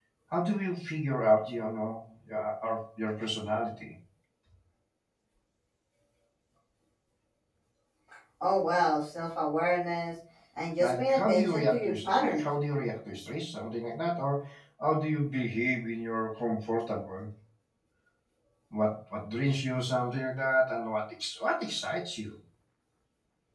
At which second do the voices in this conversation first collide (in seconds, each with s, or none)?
10.8 s